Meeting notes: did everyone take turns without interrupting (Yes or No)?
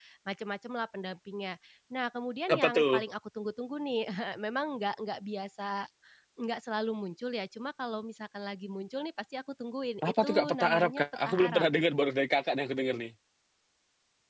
No